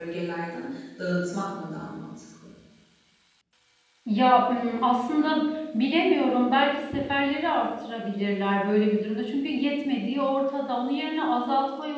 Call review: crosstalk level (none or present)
none